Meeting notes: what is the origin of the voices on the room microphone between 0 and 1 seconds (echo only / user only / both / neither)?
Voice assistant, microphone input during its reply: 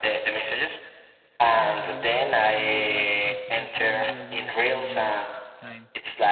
echo only